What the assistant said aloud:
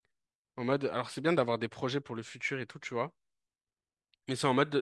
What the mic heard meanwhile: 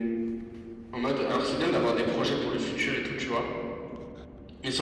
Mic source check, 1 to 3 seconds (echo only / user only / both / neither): echo only